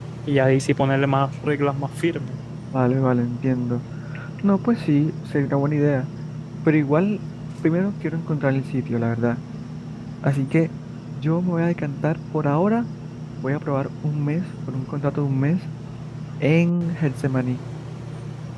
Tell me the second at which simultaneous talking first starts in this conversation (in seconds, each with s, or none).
none